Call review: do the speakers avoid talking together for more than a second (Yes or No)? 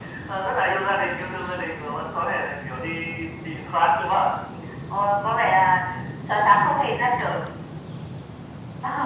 Yes